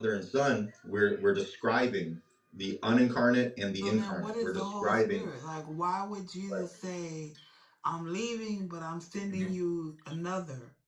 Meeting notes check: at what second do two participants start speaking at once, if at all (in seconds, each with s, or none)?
3.8 s